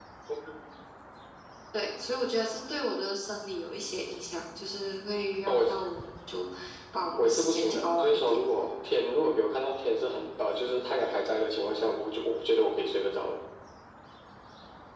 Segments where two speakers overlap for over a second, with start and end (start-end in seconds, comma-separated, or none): 7.2-8.4